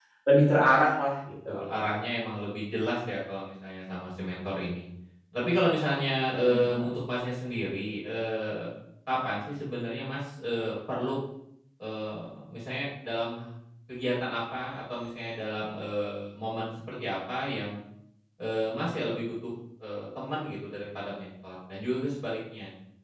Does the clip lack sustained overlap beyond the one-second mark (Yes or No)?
Yes